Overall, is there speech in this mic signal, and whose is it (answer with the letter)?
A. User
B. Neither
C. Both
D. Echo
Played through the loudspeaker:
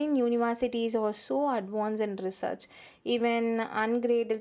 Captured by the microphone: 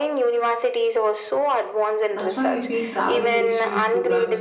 C